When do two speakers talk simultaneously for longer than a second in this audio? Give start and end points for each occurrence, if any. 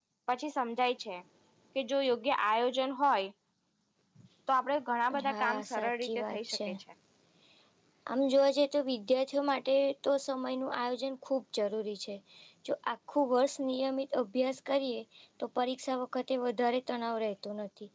5.3-6.6

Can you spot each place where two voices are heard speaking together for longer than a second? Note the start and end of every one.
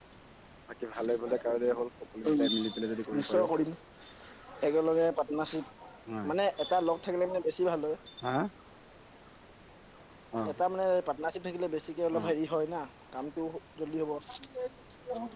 2.3-3.5

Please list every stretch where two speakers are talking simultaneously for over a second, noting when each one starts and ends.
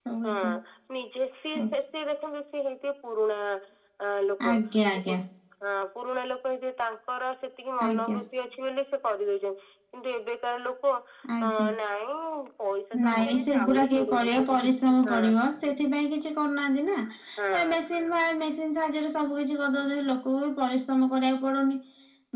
13.1-14.4

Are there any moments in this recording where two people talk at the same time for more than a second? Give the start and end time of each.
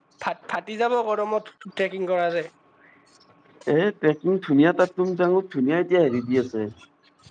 none

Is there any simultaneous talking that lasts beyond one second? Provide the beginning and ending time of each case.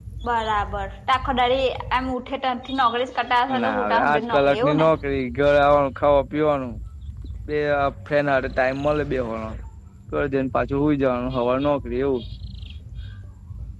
3.6-4.9

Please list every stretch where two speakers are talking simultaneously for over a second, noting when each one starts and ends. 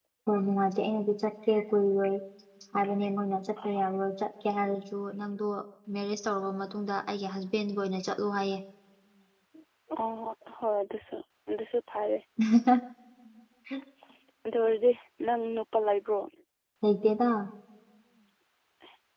none

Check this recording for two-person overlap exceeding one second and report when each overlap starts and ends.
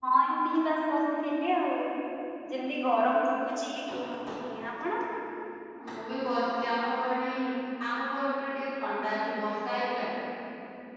none

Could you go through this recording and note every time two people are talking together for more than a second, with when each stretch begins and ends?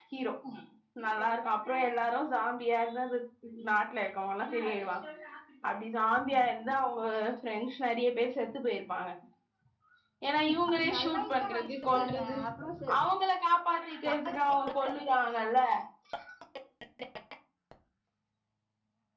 10.7-12.4

